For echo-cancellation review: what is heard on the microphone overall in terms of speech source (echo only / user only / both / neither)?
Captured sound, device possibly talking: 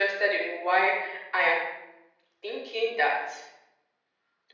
echo only